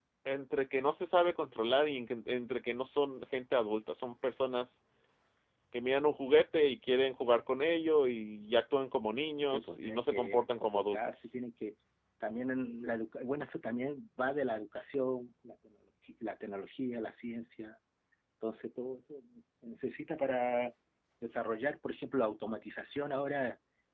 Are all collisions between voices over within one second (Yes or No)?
No